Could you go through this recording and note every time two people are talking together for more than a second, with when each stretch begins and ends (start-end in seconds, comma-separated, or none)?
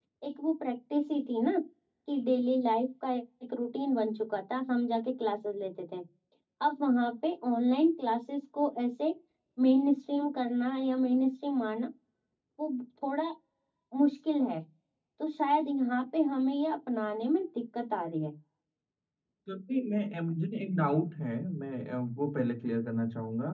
none